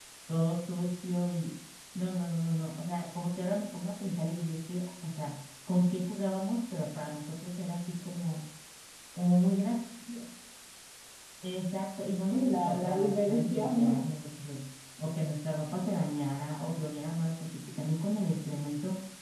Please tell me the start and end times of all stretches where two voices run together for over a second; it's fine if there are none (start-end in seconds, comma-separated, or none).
12.3-14.0